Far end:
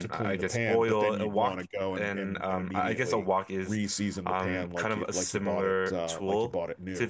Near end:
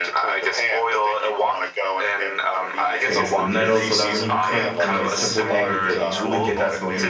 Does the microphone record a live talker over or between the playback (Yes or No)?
Yes